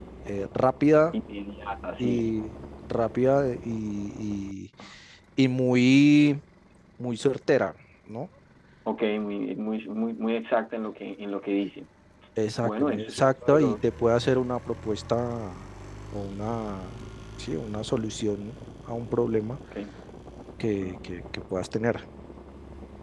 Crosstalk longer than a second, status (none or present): present